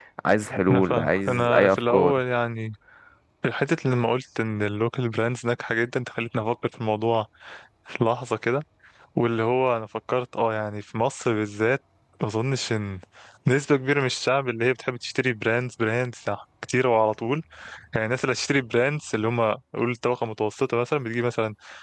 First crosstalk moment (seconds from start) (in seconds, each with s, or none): 0.7 s